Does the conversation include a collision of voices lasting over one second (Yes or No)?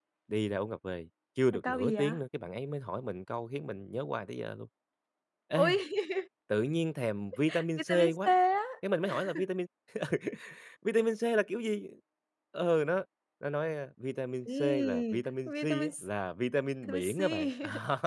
Yes